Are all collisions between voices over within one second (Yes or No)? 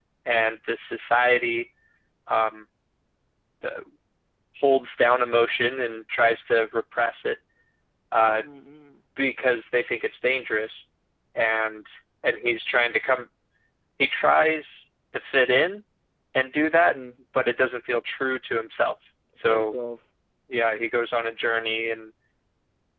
Yes